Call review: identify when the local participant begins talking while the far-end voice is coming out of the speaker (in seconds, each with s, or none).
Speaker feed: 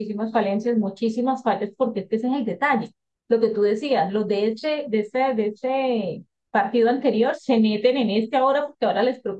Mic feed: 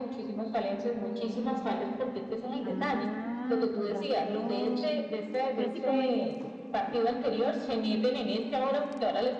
2.6 s